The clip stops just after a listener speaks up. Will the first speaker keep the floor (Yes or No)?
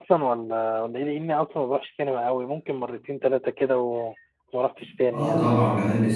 No